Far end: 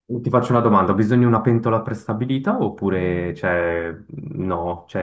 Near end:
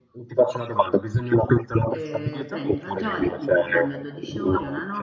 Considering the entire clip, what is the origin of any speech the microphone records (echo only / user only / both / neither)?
both